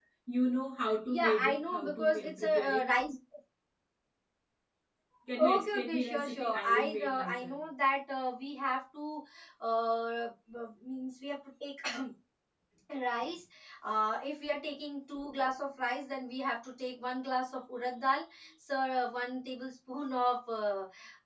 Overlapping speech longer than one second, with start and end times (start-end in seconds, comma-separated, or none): 1.1-3.0, 5.4-7.6